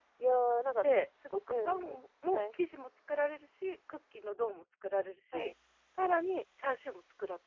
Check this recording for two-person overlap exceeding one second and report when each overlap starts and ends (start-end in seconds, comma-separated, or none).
none